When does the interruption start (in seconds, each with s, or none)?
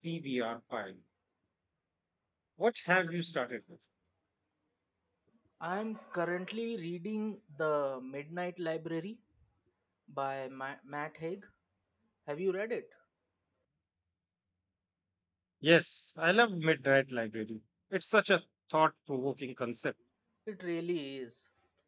none